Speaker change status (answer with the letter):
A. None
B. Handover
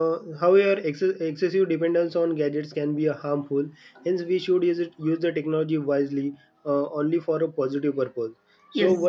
A